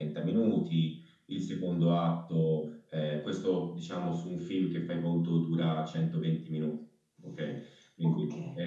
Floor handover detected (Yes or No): Yes